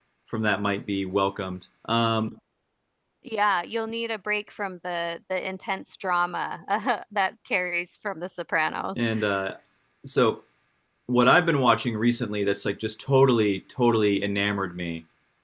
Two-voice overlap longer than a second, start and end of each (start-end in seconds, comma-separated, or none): none